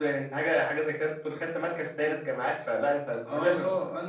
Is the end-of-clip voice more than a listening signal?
Yes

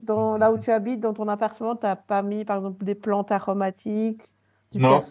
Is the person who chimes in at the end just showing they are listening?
No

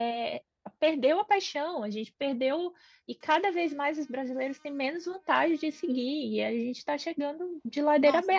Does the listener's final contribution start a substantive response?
Yes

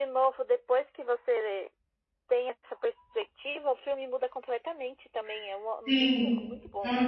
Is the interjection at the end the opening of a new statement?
Yes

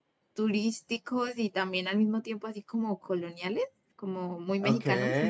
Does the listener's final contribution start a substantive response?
Yes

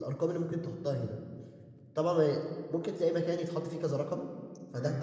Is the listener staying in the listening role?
Yes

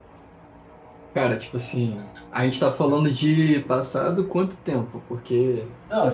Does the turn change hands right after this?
Yes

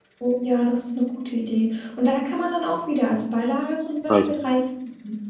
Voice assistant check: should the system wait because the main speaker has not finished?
Yes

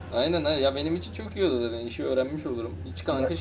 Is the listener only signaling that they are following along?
Yes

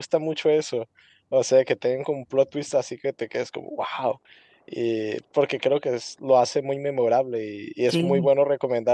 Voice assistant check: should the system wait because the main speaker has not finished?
Yes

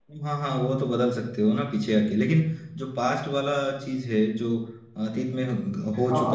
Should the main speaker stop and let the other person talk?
Yes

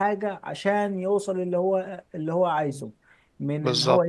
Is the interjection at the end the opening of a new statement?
No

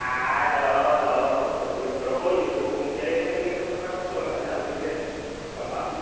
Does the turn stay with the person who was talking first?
No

